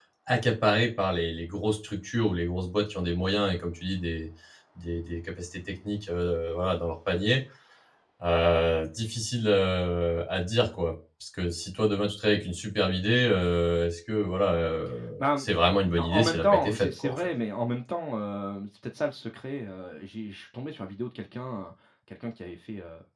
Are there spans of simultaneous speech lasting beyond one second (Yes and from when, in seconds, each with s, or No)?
Yes, from 15.2 s